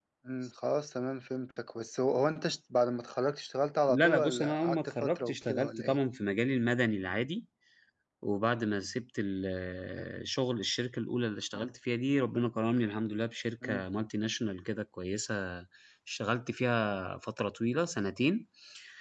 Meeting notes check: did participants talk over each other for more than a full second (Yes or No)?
Yes